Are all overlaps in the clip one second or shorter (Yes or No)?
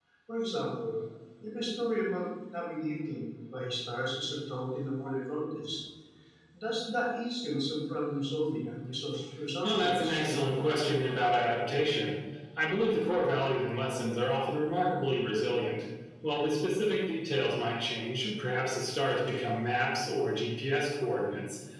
No